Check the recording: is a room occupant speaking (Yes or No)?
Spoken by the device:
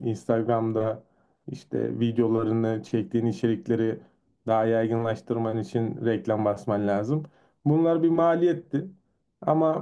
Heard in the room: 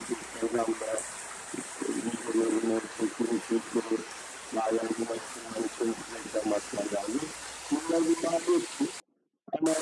No